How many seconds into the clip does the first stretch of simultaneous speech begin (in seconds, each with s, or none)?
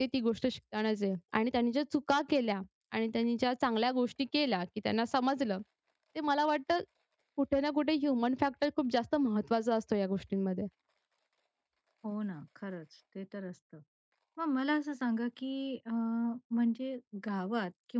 none